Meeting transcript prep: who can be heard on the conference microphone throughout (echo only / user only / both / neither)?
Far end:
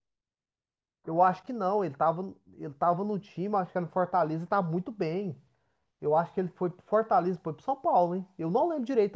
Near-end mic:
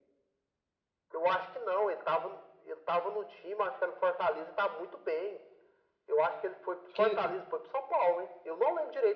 both